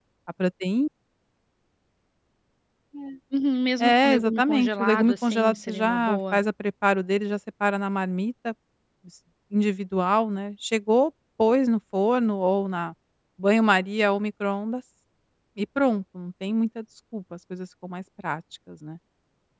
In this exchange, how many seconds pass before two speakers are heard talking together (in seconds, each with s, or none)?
3.8 s